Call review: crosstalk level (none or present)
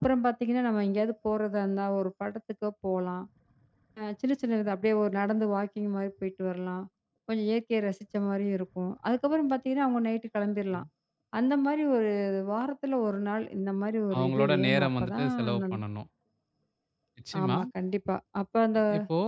present